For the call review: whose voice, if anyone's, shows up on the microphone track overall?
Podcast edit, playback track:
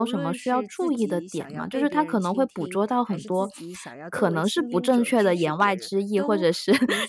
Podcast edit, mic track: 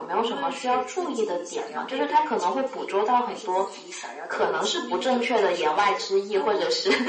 echo only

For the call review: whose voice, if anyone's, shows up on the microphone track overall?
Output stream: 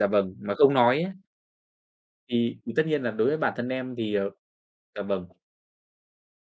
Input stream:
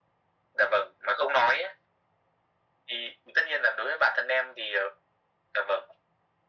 echo only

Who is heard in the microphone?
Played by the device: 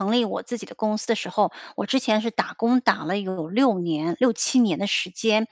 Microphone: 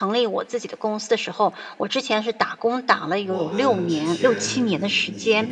both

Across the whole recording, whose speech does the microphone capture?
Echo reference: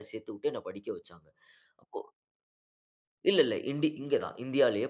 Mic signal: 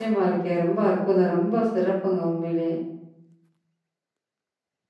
user only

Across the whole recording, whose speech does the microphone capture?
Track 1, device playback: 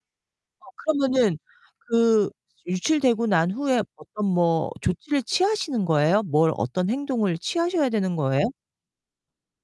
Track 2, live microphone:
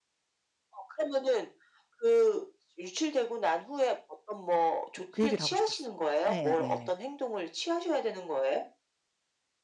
both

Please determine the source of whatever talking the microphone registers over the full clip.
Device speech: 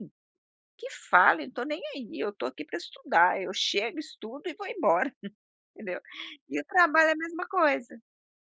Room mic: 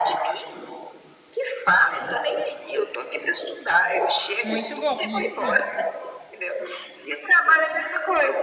both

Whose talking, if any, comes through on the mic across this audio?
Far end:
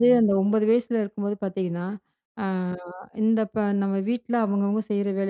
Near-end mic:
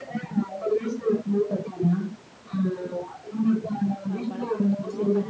both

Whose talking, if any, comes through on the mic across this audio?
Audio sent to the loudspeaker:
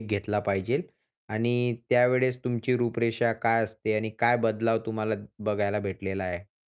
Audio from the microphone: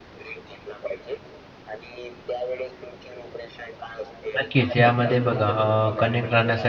both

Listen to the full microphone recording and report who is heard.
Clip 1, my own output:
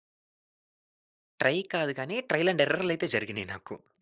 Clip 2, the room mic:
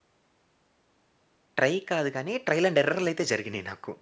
echo only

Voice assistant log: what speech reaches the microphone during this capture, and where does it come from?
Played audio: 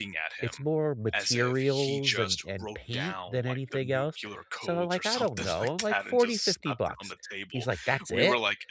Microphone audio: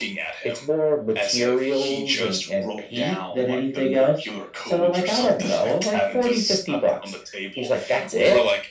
echo only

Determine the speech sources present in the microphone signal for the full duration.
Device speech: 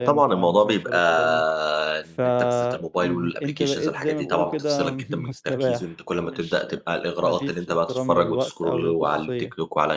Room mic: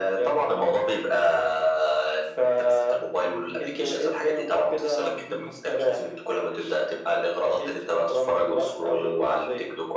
echo only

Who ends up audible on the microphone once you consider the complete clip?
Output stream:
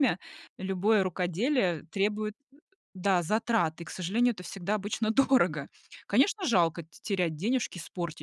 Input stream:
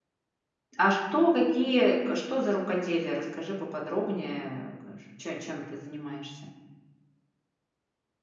user only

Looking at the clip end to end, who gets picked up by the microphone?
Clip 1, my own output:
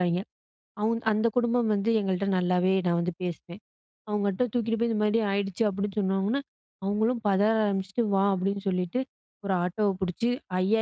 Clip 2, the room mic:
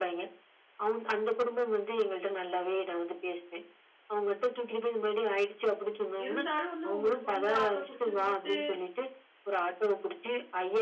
both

